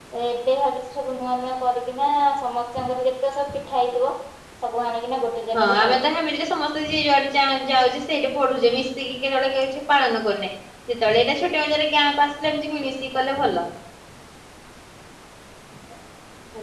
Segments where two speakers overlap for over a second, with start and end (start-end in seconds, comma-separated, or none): none